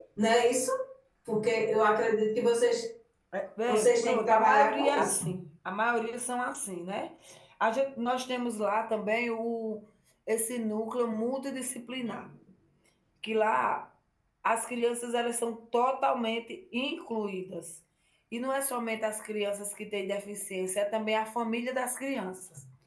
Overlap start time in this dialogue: 3.7 s

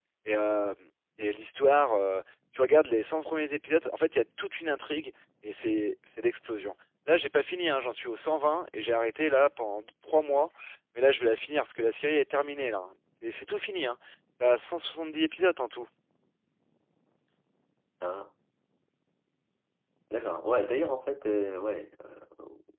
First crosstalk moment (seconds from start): none

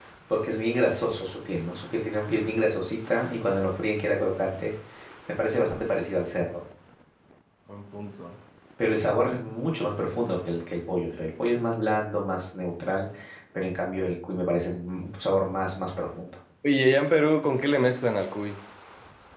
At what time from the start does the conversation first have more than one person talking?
none

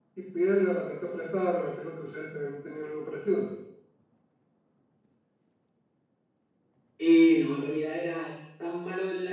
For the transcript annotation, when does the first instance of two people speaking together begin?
none

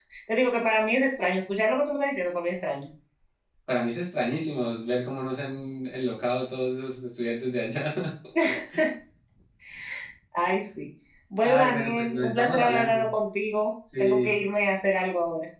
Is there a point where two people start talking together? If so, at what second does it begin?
11.4 s

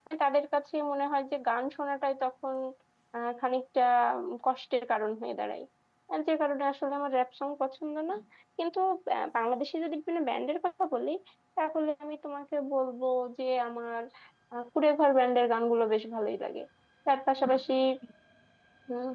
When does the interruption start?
none

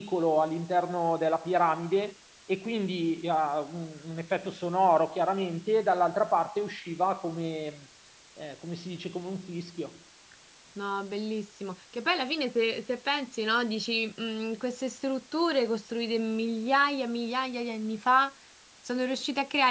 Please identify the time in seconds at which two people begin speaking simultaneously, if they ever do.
none

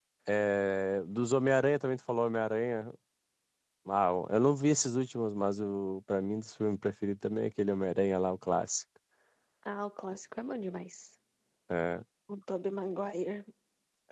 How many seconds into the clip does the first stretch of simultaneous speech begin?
none

